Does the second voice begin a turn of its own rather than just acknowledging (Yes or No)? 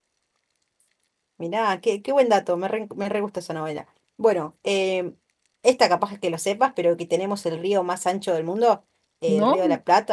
No